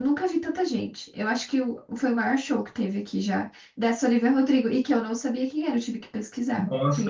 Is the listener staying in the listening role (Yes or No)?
No